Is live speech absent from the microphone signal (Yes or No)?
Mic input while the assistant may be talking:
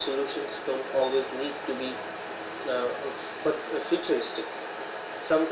Yes